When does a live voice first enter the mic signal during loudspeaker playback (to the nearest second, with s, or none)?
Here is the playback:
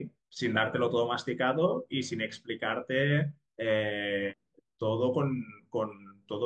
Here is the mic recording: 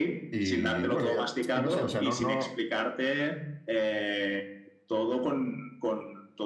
0 s